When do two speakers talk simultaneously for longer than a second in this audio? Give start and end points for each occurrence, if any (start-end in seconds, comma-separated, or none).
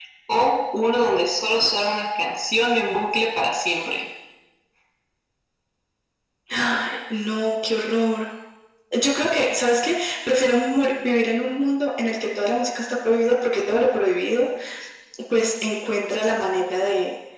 none